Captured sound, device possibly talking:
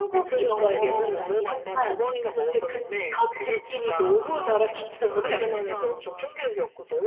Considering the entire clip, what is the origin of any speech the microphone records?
both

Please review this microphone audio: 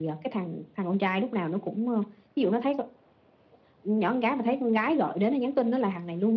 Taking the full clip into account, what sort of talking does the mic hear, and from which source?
echo only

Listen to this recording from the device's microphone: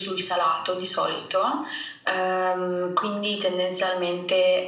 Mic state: echo only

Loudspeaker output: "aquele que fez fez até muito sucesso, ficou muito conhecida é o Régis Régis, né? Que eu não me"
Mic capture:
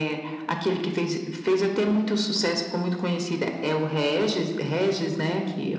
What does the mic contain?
echo only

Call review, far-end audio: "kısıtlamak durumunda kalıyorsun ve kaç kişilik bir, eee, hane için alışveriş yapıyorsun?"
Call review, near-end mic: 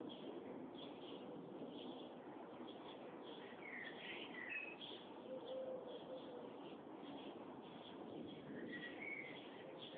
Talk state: neither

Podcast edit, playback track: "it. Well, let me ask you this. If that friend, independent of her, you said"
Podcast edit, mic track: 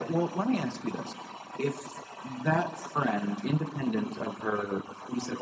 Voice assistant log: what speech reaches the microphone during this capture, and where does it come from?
echo only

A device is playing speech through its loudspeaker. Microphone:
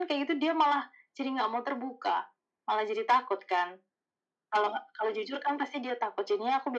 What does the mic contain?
echo only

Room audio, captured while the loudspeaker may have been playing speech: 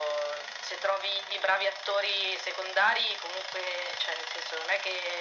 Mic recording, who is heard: echo only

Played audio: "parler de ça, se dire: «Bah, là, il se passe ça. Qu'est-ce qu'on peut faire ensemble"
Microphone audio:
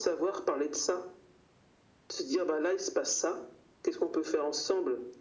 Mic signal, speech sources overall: echo only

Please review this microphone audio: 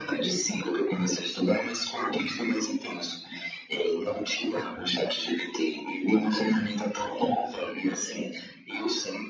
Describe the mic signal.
both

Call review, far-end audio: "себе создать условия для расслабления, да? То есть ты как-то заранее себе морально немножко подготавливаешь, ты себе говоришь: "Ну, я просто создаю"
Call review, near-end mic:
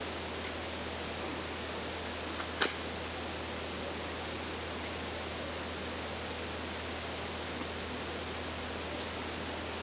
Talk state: neither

